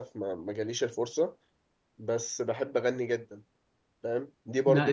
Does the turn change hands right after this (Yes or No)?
No